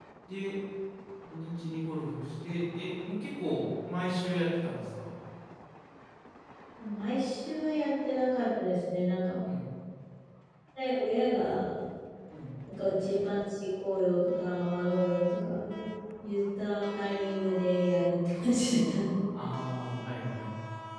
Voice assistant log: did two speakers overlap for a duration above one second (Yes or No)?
No